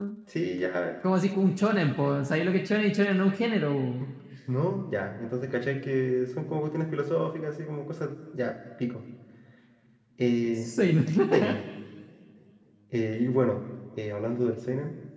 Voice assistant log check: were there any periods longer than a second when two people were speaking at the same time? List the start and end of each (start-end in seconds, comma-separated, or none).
none